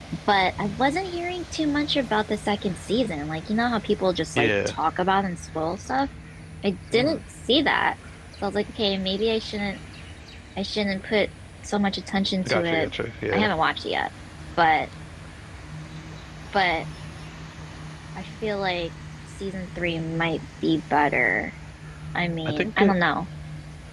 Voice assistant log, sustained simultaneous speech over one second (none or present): none